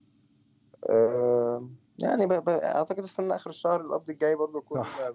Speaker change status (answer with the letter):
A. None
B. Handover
B